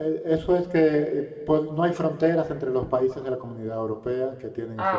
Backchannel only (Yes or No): Yes